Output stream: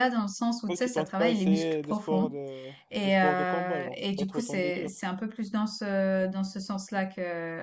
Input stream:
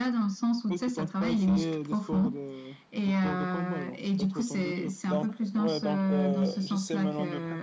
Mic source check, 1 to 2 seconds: echo only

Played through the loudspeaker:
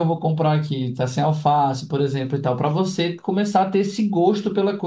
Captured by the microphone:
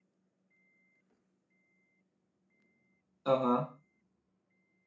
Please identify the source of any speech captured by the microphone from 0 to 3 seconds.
neither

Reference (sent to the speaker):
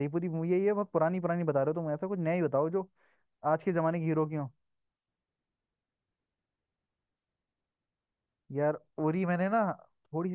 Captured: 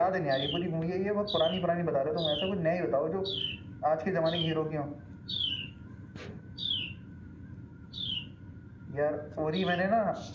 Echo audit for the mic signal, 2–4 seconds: echo only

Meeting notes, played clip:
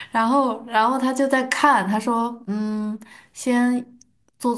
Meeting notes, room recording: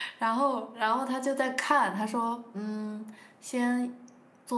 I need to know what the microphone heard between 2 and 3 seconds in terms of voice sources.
echo only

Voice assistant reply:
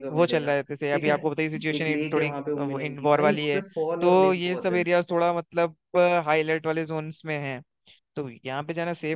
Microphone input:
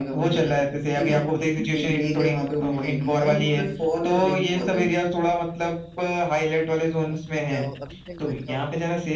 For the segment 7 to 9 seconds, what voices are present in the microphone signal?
both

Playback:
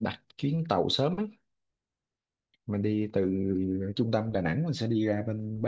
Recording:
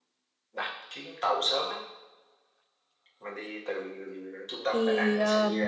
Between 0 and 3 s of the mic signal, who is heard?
echo only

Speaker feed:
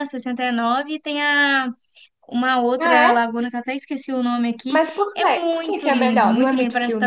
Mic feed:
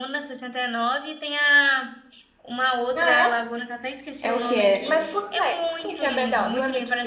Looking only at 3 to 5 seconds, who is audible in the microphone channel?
both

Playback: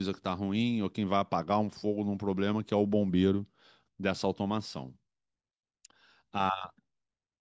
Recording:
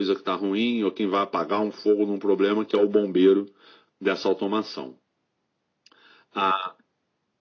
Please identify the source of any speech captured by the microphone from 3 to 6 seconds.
echo only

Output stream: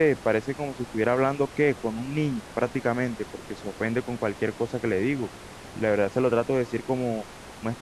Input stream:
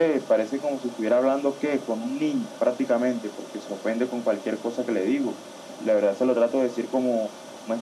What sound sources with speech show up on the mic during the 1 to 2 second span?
echo only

